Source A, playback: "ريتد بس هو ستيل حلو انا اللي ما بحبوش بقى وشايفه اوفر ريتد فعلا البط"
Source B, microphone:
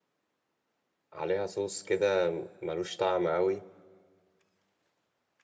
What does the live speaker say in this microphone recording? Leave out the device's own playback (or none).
عليها صوص كده ملوش طعم قوي